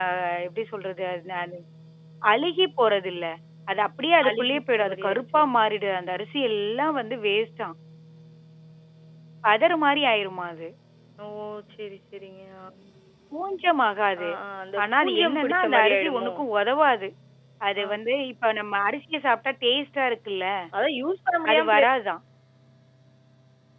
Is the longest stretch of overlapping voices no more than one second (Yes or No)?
No